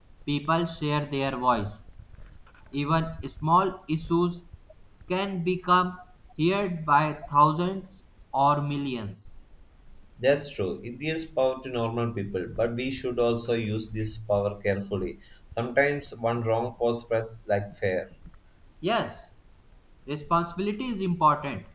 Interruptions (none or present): none